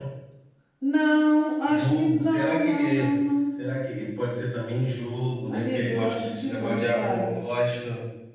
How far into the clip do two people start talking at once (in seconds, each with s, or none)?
1.7 s